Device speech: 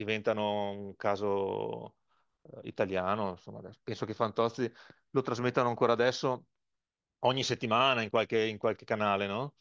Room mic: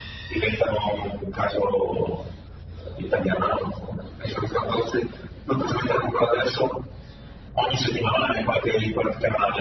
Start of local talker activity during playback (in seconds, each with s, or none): none